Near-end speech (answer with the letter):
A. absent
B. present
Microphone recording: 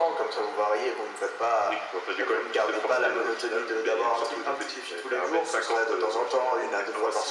A